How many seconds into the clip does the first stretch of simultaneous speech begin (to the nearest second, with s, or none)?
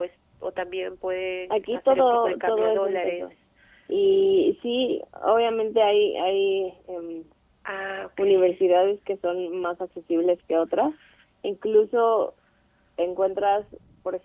2 s